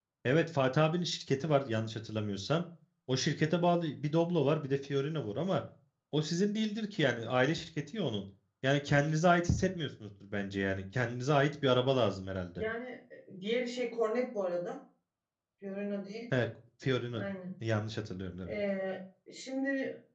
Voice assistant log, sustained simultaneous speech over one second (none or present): none